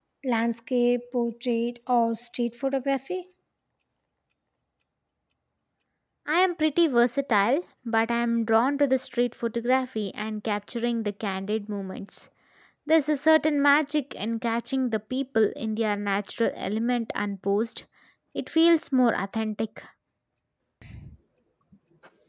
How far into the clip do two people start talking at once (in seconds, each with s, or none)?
none